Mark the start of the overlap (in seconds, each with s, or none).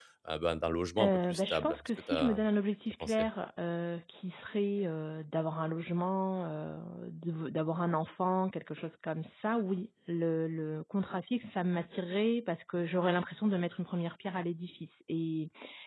1.0 s